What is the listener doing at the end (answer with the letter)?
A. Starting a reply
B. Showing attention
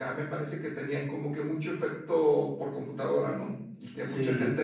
A